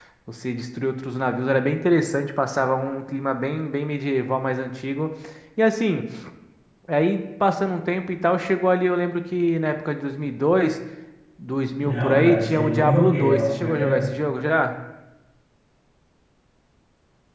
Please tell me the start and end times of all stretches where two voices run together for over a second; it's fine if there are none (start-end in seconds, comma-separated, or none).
11.8-14.1